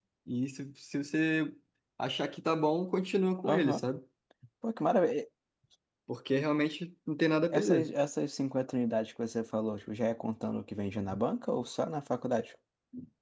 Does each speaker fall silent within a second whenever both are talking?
Yes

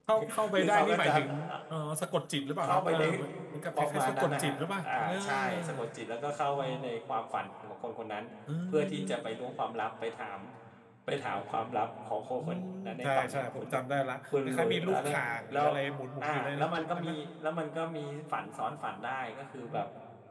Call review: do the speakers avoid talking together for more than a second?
No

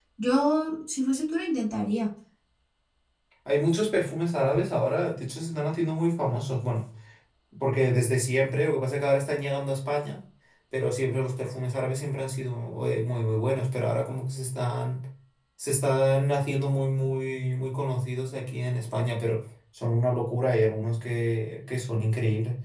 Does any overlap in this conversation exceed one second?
No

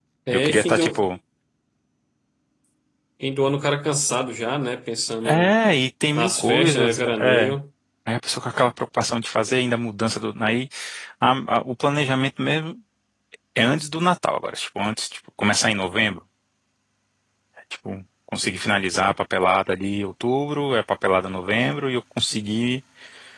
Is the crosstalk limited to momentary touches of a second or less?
No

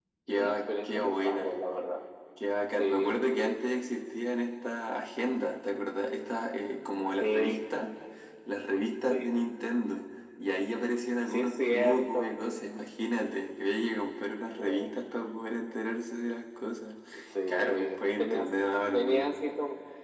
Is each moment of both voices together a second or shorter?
No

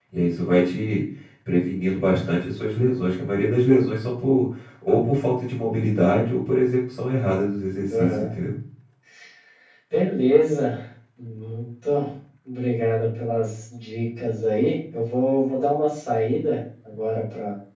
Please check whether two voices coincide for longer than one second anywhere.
No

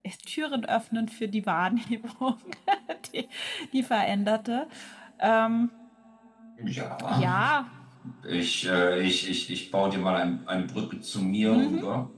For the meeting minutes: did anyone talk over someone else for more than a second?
No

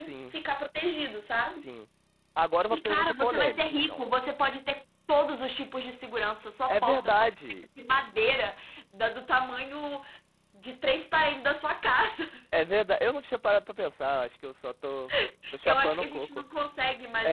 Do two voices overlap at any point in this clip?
Yes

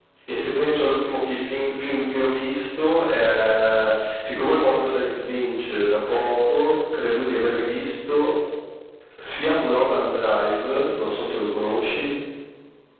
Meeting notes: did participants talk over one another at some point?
No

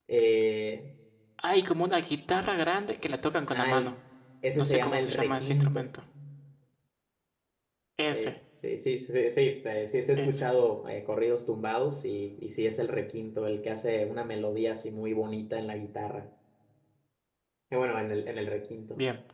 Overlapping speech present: Yes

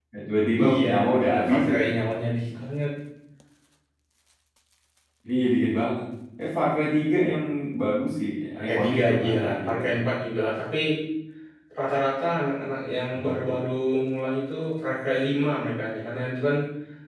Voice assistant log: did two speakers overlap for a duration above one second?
Yes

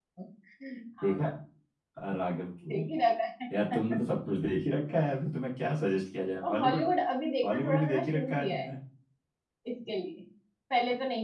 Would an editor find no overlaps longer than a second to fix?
No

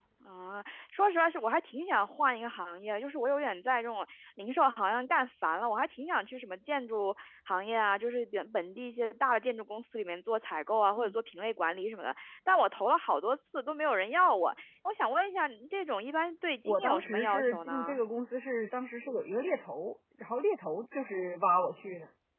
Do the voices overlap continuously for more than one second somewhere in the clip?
Yes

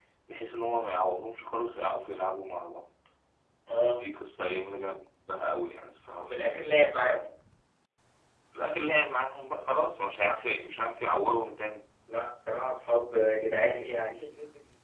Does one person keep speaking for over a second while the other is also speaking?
No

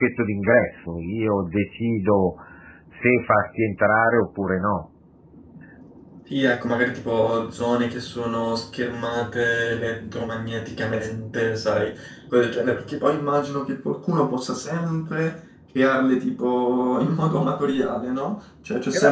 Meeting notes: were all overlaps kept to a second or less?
Yes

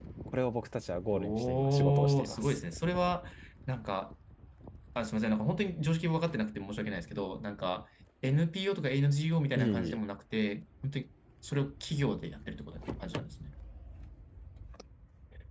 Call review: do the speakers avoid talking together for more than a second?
No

